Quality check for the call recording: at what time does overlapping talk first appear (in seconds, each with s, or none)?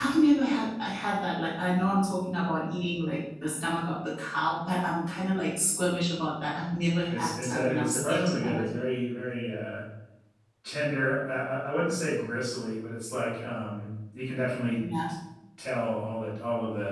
7.1 s